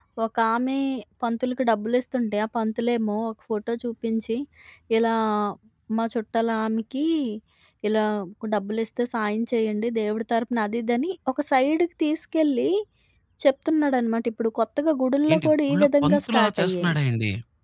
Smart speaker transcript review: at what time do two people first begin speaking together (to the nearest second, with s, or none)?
15 s